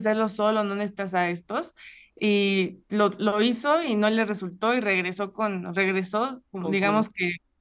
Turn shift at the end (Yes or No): No